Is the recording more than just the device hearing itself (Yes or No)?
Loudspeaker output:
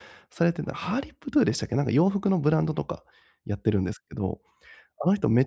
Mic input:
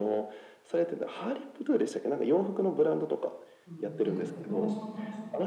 Yes